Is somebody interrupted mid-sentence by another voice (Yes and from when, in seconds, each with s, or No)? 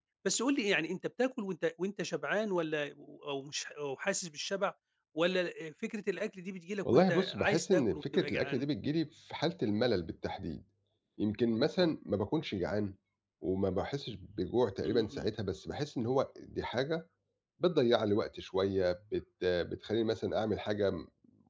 Yes, from 6.8 s